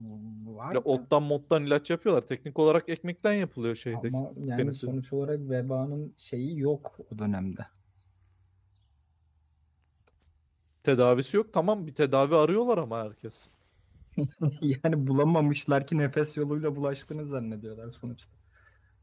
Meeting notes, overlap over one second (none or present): none